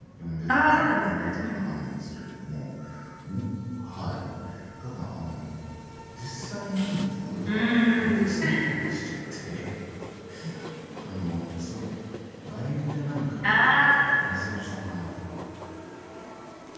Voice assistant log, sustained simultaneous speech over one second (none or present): present